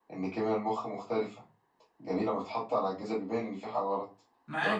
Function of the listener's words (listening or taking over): taking over